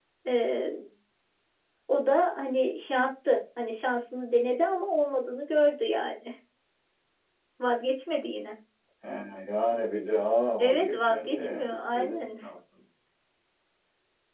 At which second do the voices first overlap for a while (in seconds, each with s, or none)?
10.6 s